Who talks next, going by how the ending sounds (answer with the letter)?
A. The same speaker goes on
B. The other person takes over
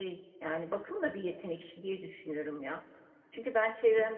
A